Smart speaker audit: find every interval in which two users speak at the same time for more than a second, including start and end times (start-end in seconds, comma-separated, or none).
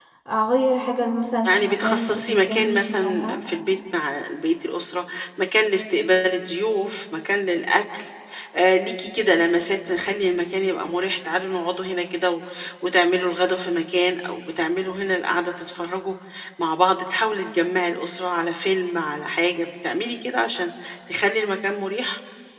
1.4-3.4